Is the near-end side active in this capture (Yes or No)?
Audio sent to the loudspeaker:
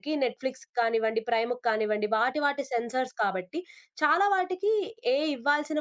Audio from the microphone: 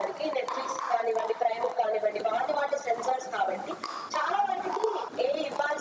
No